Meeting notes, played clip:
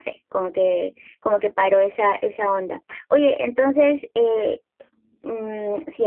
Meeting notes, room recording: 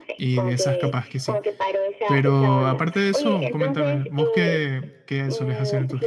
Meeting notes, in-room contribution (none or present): present